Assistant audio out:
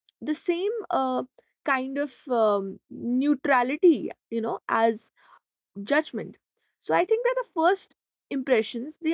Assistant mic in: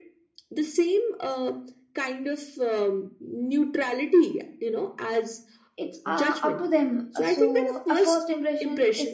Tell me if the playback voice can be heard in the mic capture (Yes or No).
Yes